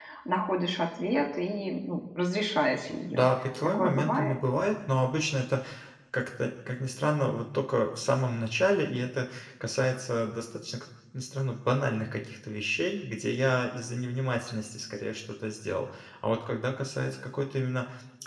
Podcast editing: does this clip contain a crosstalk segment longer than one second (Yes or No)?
Yes